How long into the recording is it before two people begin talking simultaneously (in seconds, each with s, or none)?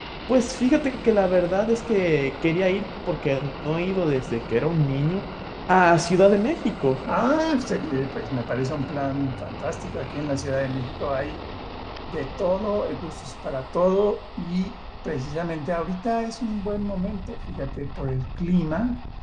none